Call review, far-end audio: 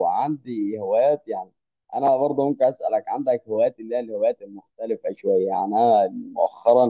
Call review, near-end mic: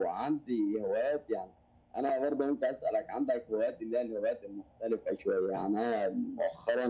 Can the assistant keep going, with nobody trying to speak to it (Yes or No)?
Yes